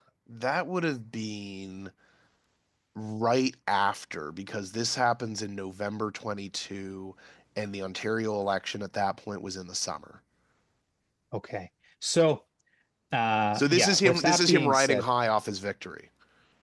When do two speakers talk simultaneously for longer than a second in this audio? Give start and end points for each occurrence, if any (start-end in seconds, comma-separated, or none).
13.5-15.1